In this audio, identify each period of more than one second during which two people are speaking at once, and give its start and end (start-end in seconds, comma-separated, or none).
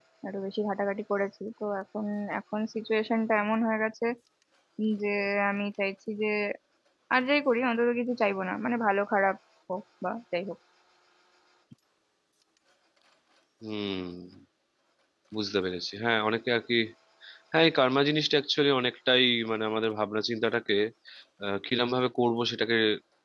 none